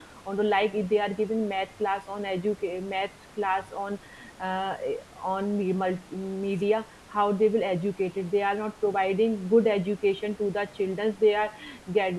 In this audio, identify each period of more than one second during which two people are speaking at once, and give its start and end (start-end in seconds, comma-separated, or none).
none